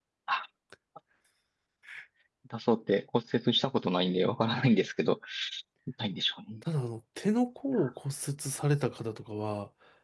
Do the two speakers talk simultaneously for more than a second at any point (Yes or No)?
No